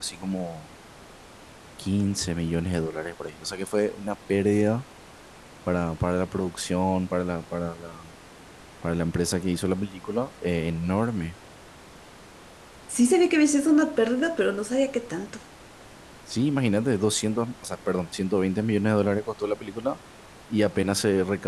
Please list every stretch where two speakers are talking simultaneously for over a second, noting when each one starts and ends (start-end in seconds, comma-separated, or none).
none